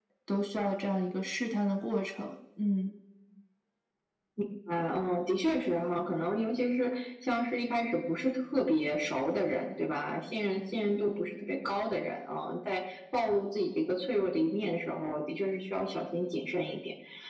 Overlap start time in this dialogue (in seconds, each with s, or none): none